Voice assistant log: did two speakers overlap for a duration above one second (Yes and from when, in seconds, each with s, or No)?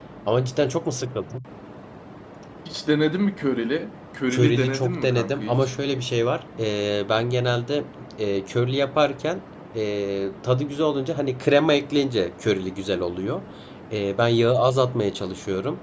Yes, from 4.3 s